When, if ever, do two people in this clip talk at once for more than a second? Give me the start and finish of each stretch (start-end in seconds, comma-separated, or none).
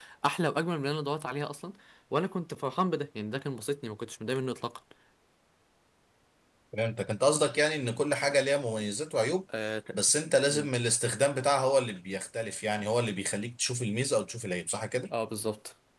none